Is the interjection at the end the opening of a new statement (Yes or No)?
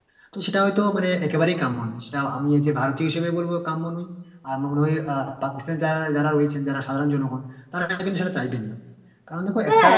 Yes